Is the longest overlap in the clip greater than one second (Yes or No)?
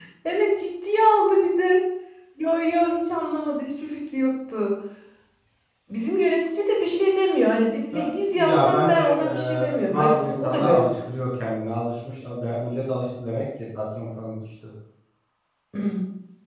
Yes